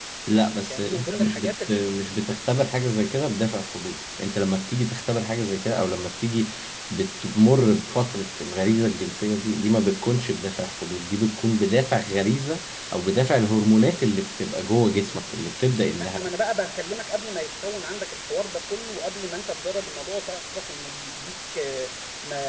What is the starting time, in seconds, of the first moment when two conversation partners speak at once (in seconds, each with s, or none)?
0.7 s